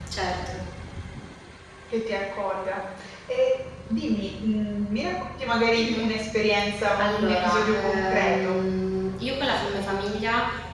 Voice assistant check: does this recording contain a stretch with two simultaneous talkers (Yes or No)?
Yes